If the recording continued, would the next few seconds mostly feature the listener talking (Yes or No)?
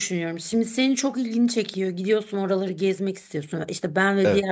No